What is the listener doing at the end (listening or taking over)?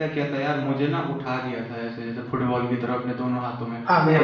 listening